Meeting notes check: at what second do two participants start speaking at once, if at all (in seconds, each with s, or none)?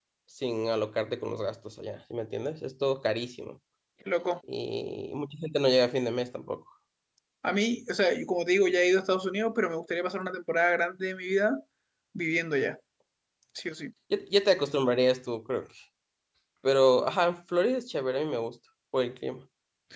none